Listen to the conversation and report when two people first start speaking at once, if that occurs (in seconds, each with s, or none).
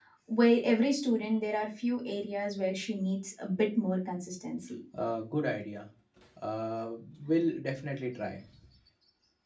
none